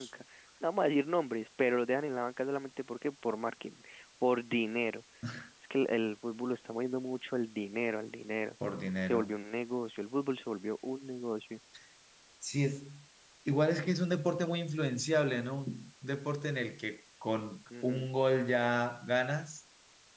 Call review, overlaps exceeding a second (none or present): none